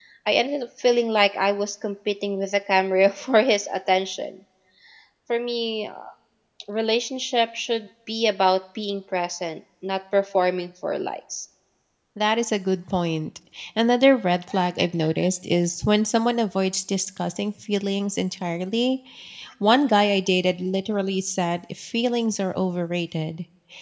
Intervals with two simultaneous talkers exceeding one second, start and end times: none

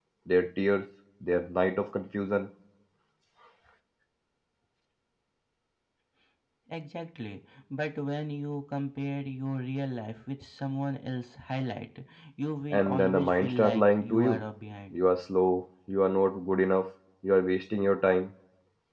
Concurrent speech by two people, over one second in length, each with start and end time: 12.7-14.4

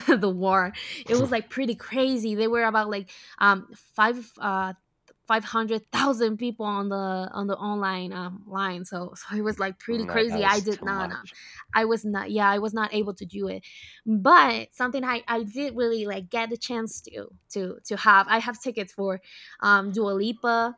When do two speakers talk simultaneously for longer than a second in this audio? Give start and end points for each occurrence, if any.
9.9-11.1

